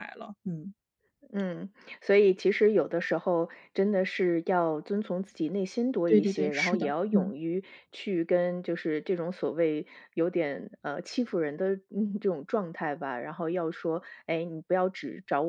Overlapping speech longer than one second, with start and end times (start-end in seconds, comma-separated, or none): 6.1-7.3